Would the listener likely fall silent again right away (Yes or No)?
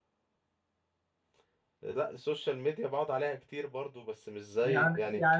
No